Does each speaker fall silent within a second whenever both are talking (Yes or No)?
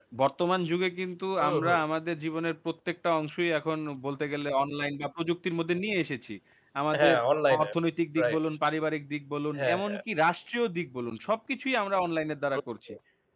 Yes